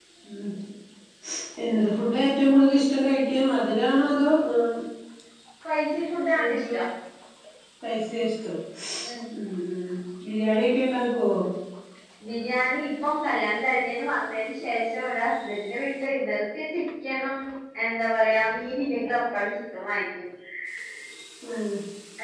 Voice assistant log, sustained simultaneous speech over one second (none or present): none